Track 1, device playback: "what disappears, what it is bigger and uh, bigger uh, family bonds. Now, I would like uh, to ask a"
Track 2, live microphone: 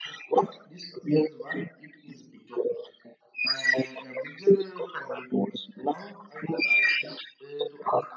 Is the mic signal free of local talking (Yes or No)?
Yes